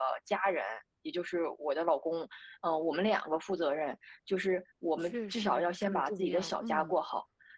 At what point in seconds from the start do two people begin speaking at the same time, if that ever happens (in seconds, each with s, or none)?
5.0 s